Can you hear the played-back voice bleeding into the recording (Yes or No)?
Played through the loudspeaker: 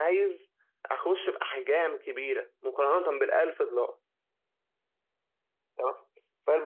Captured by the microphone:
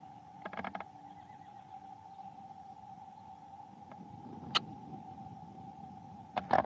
No